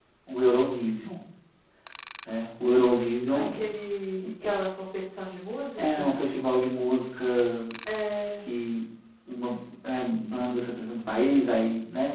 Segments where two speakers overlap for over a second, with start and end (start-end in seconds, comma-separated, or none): none